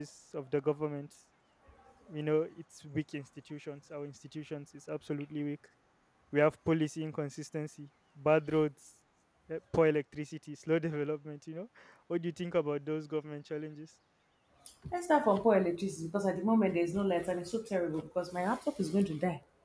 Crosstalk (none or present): none